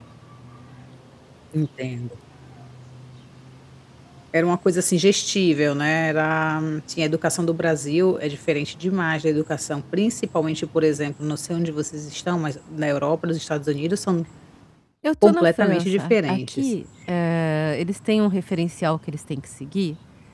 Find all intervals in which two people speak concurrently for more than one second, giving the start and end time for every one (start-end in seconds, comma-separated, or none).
15.2-16.7